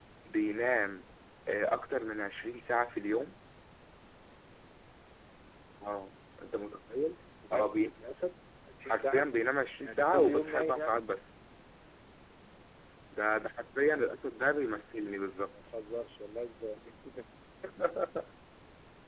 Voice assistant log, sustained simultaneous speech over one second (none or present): present